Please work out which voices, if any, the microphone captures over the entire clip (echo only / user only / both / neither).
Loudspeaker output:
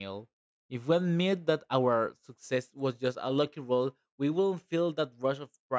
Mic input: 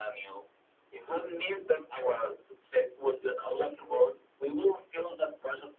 echo only